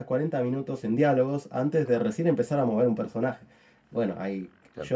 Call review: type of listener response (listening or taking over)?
listening